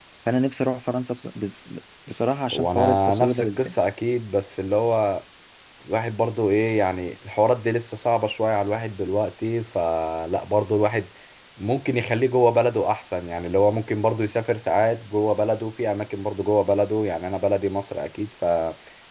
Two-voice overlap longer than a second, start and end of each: 2.5-3.7

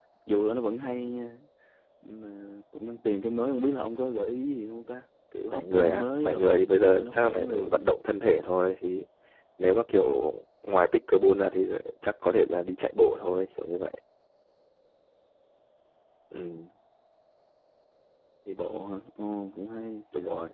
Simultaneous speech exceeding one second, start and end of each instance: 5.5-7.9

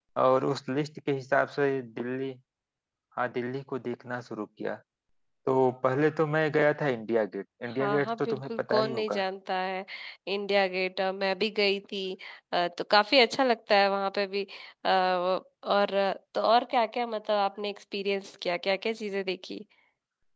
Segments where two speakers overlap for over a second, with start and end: 7.8-9.2

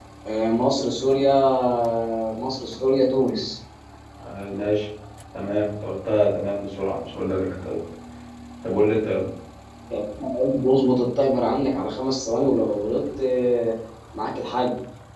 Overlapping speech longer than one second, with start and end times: none

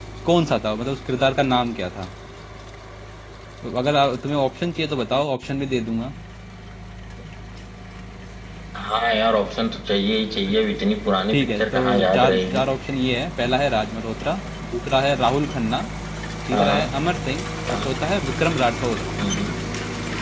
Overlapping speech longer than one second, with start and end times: 11.3-12.6

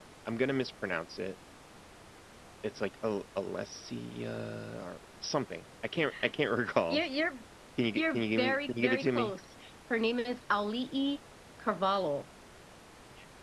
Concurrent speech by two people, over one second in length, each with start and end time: 8.0-9.3

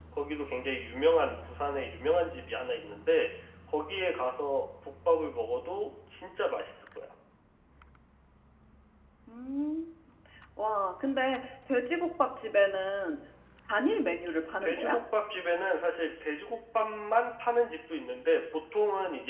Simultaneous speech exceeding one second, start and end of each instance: none

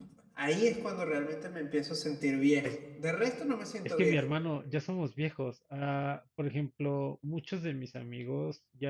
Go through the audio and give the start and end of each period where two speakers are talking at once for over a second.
none

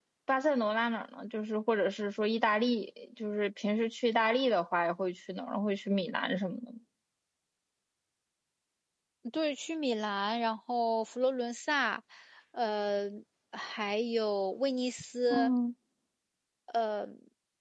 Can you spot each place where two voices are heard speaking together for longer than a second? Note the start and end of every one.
none

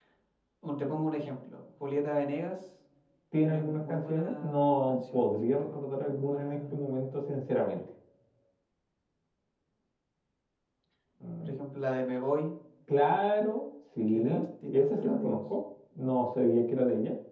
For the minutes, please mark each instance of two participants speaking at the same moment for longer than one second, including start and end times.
3.4-6.7, 14.1-15.4

